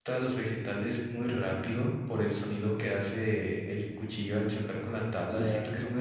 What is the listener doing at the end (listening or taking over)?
listening